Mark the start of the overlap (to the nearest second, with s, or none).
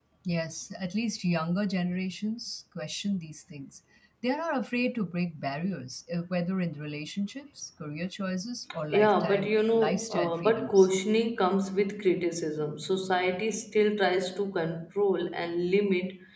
9 s